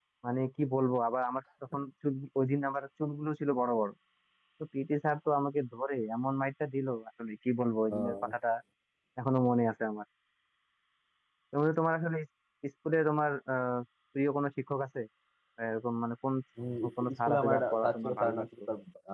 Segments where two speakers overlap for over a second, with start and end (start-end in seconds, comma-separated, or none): 17.0-18.4